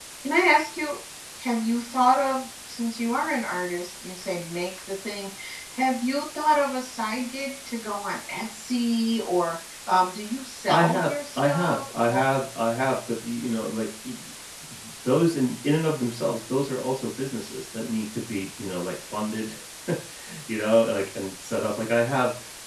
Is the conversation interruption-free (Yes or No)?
No